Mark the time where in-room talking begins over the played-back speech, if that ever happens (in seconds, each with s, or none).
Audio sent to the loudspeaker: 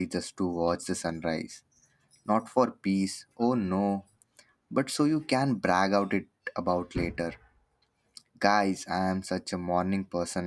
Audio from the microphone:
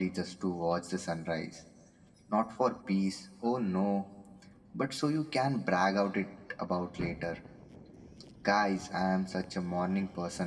none